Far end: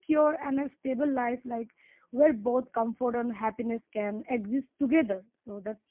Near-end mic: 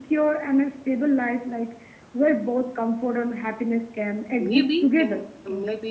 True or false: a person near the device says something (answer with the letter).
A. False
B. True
B